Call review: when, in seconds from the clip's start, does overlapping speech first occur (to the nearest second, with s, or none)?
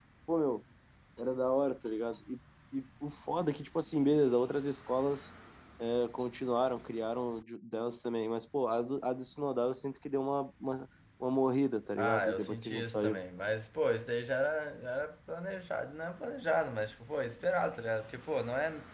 12 s